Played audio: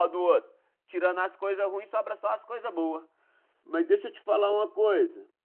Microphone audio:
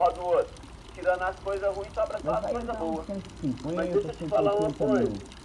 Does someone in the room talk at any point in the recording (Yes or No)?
Yes